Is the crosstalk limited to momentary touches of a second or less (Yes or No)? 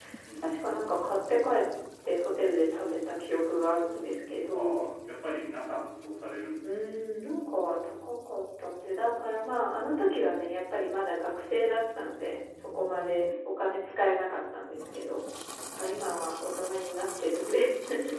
Yes